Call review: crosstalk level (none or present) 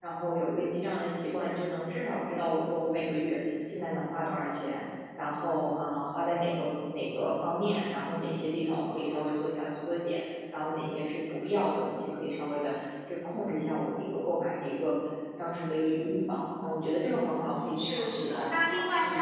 present